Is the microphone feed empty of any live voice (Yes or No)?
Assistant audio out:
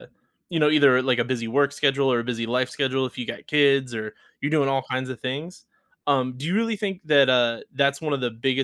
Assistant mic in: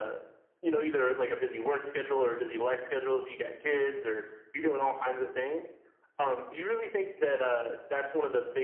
Yes